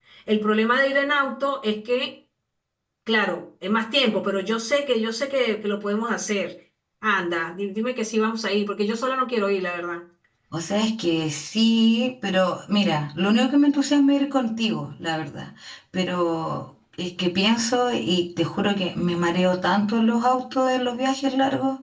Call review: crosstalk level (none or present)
none